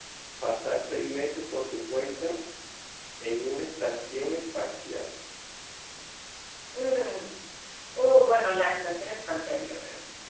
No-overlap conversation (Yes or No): Yes